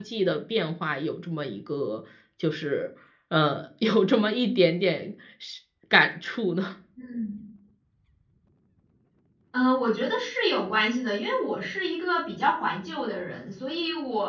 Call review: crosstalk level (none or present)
none